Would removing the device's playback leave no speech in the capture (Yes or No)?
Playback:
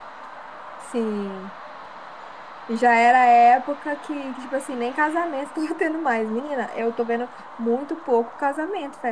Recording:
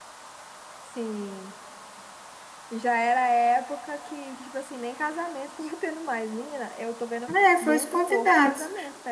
No